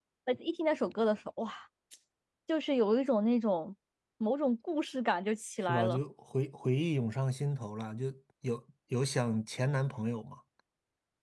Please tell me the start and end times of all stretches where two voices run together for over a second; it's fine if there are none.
none

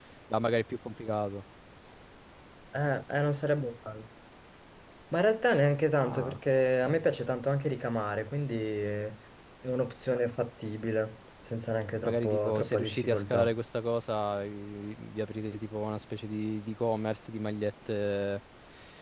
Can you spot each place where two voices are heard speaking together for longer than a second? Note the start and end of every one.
12.0-13.6

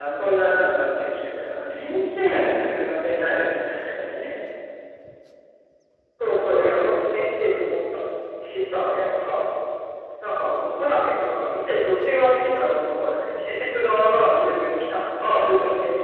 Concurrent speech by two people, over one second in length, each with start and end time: none

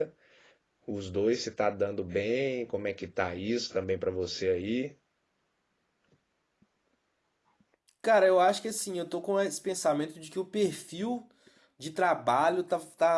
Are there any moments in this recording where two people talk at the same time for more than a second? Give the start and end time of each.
none

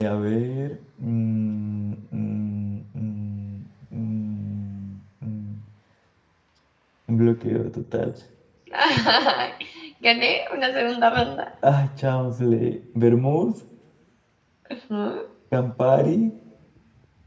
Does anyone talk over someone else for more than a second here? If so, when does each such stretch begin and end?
none

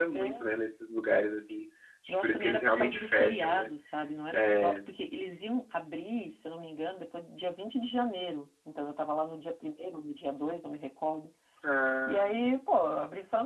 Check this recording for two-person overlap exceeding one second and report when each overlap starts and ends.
2.1-3.7

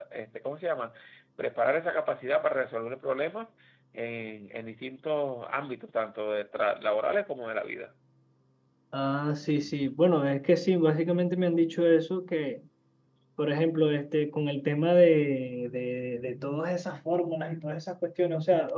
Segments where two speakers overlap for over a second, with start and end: none

